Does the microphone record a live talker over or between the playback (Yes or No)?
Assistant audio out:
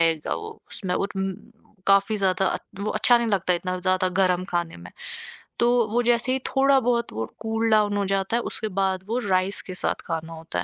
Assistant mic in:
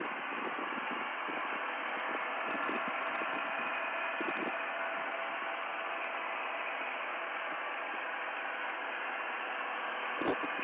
No